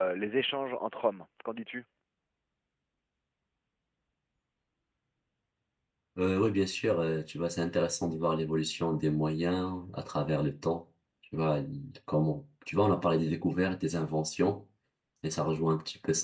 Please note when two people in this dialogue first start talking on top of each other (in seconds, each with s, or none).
none